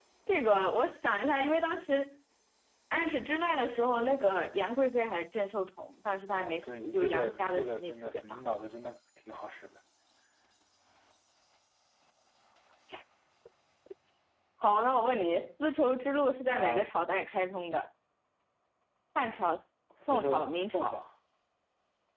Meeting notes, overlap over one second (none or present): present